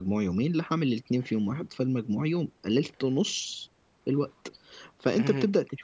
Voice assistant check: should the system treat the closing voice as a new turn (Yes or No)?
No